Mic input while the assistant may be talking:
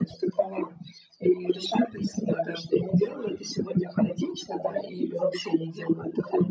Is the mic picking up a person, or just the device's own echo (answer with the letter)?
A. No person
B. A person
A